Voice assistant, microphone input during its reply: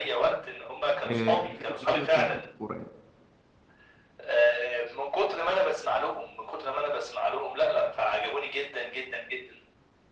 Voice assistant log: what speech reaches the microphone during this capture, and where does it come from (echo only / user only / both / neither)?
both